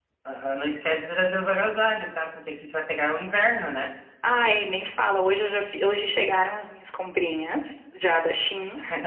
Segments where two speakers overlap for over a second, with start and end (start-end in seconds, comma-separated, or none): none